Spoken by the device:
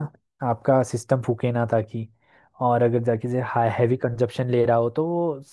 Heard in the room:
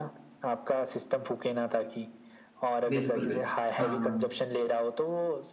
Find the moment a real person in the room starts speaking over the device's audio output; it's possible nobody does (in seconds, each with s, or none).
2.9 s